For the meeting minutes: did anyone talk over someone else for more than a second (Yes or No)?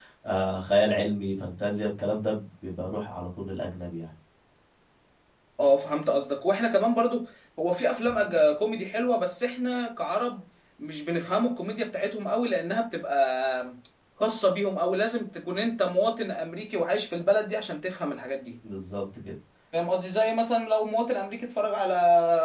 No